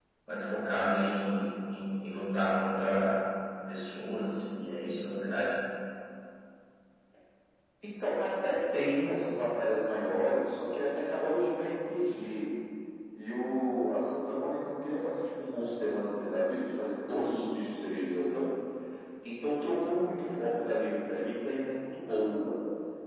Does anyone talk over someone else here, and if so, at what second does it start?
none

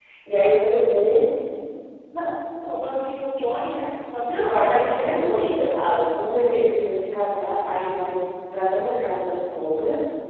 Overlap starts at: 4.3 s

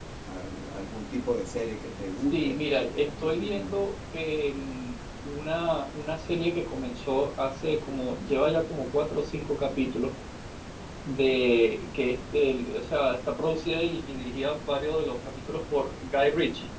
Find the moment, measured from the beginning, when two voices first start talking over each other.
2.3 s

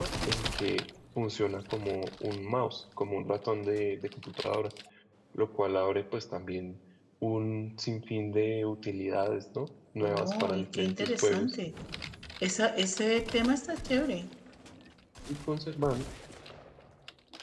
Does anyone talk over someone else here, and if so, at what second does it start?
10.0 s

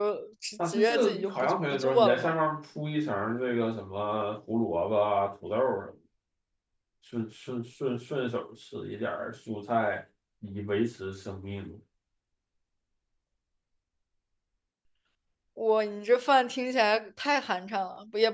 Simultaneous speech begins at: 0.7 s

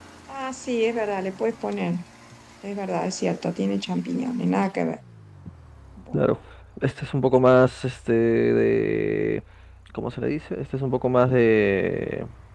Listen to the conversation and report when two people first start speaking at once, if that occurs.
none

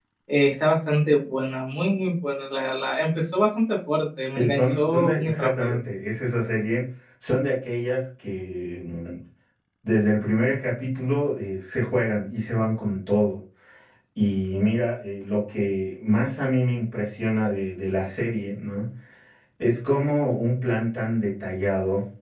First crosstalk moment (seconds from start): 4.4 s

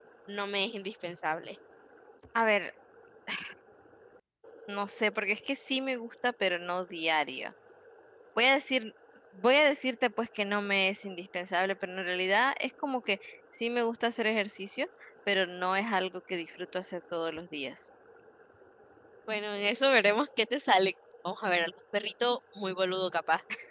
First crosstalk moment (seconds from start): none

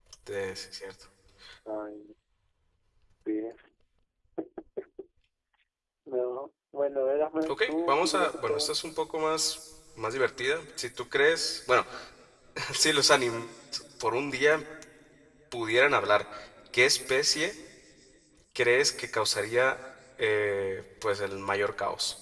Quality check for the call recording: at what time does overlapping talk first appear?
7.4 s

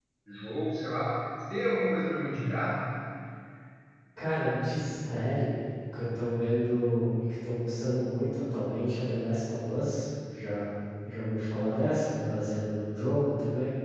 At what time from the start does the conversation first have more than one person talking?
none

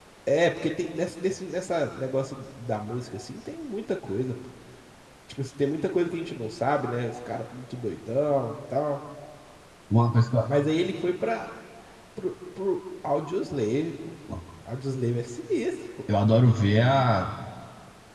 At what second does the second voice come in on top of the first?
none

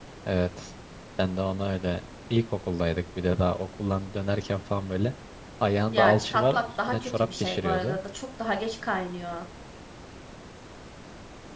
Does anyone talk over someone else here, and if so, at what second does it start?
5.9 s

